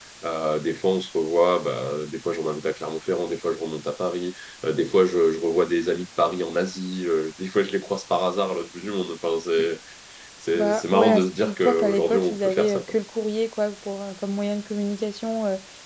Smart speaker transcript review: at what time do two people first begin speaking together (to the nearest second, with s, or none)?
11 s